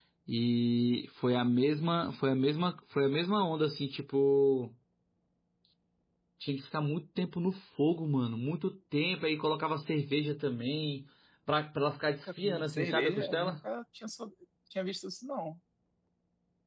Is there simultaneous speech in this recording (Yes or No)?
Yes